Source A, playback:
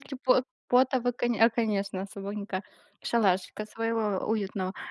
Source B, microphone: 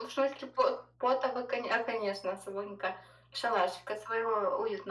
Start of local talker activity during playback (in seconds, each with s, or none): none